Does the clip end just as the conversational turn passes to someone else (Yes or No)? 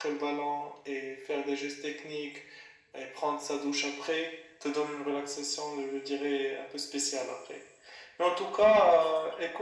No